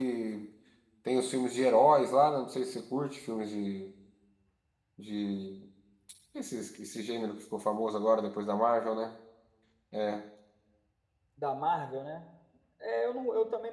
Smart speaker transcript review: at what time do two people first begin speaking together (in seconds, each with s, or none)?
none